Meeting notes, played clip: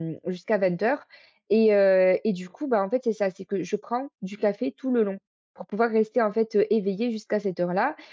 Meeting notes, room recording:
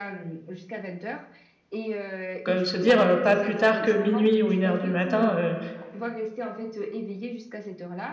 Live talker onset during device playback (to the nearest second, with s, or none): 2 s